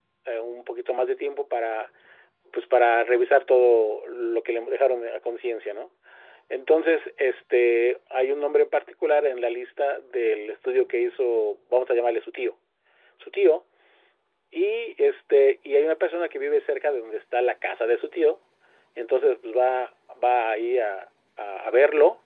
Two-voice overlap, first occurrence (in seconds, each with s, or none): none